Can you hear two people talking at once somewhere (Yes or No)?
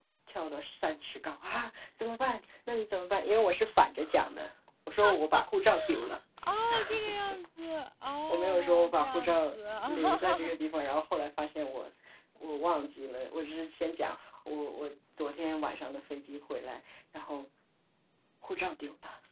Yes